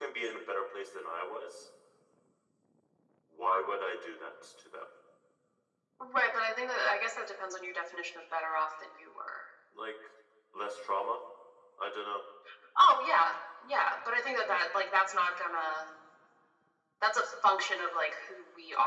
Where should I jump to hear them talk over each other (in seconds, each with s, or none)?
none